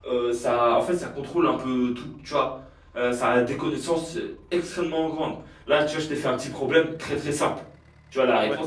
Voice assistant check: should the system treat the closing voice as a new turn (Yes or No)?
No